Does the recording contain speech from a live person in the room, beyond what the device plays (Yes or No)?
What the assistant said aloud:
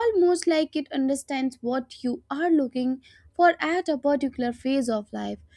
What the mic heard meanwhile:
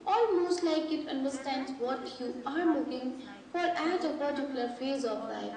Yes